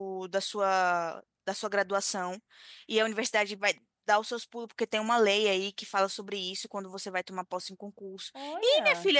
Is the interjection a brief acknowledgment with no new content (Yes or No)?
Yes